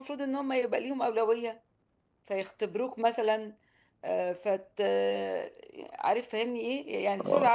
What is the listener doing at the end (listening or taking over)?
listening